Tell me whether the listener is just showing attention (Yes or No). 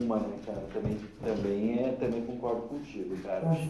No